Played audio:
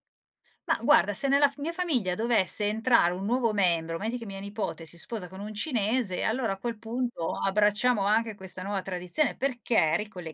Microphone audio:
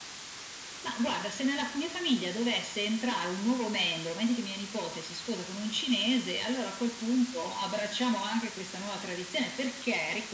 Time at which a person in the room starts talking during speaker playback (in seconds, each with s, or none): none